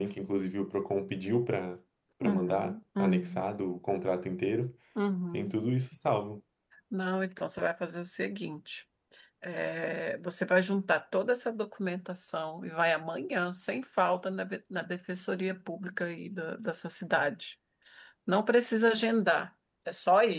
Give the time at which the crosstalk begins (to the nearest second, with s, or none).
2 s